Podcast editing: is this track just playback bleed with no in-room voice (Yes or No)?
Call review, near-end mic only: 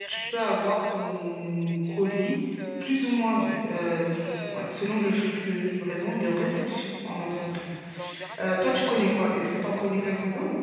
No